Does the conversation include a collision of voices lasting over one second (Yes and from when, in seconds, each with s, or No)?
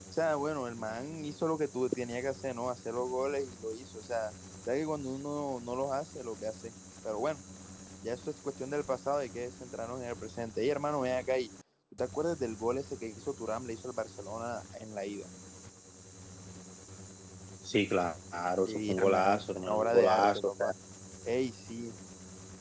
Yes, from 18.7 s